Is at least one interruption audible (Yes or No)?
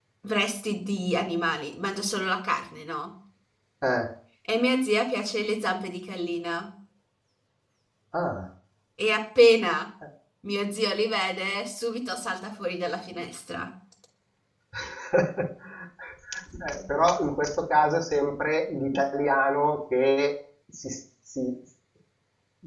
No